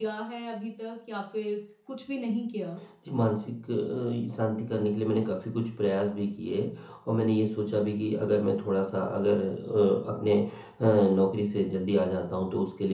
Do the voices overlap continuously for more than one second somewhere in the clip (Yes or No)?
No